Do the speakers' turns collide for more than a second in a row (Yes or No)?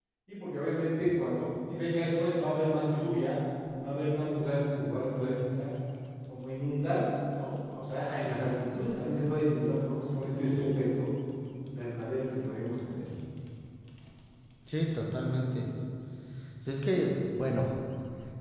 No